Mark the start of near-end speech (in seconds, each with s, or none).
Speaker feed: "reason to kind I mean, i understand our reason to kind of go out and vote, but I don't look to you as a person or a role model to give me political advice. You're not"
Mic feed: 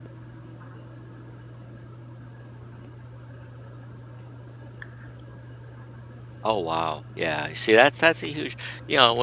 6.4 s